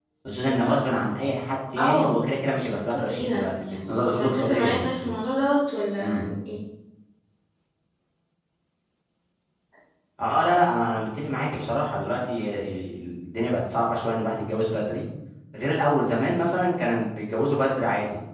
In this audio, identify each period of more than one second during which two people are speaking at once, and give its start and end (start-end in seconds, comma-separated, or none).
2.7-5.1